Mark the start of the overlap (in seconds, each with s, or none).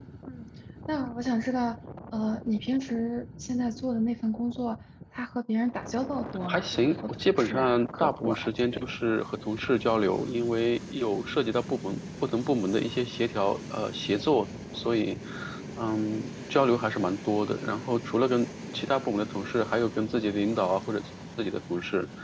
6.5 s